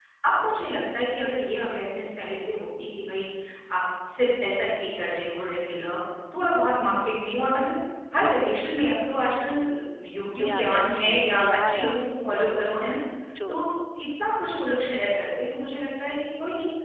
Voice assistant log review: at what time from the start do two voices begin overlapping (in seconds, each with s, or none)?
10.4 s